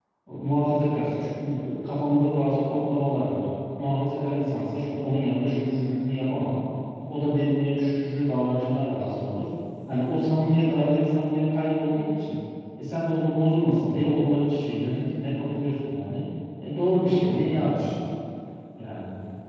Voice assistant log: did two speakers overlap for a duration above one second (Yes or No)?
No